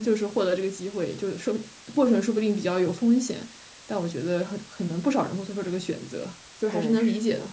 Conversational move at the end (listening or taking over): taking over